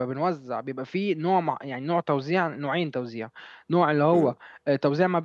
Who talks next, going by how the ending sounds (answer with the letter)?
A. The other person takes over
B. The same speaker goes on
B